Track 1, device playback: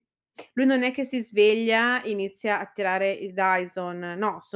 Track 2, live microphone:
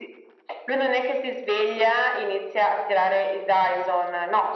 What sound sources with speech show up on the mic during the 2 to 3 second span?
echo only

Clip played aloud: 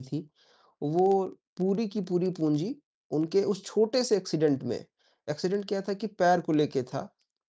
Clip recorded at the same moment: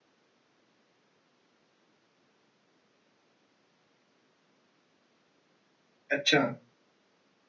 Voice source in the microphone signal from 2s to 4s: neither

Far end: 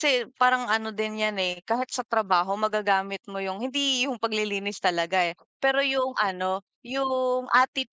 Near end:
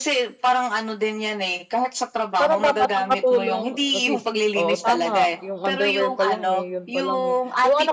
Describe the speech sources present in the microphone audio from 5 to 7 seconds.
both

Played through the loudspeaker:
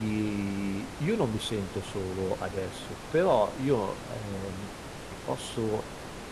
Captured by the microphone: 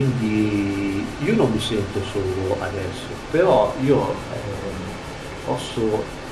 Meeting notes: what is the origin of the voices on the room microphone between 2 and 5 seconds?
echo only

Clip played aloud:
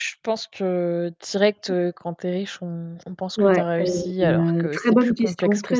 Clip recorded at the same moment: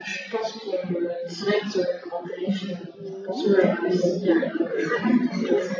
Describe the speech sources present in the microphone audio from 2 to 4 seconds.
both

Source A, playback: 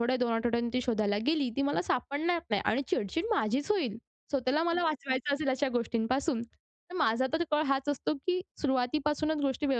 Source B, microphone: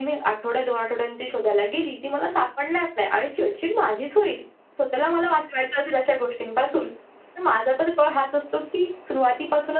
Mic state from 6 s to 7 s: echo only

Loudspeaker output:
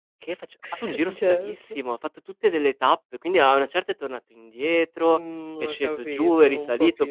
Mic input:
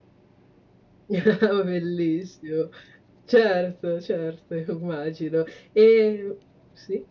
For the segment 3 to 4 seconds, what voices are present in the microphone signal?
user only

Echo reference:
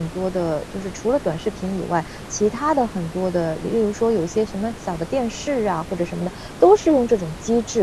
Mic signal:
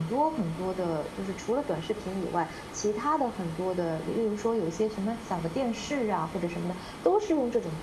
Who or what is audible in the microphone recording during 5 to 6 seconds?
echo only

